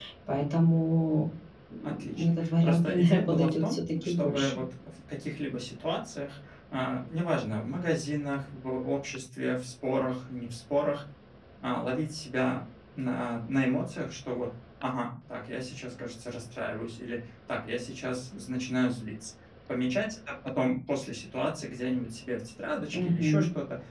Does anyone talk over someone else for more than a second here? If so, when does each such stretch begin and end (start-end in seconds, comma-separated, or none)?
1.8-4.6